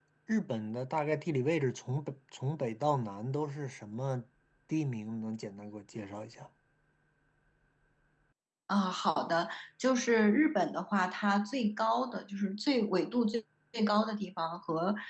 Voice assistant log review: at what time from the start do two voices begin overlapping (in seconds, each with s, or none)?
none